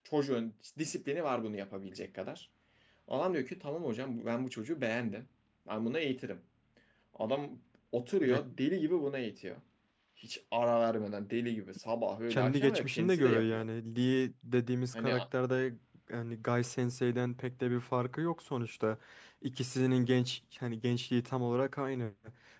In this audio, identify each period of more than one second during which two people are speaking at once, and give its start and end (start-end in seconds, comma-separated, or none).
12.3-13.6